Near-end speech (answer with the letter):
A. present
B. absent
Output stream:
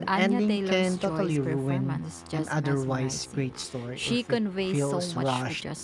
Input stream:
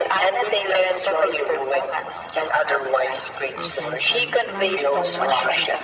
A